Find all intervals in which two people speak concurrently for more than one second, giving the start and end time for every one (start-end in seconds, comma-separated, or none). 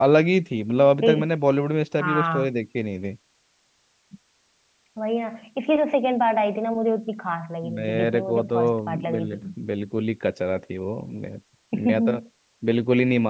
7.7-9.4